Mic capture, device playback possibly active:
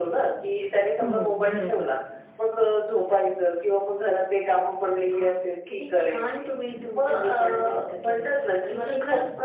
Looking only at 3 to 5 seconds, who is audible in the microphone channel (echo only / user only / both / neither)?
echo only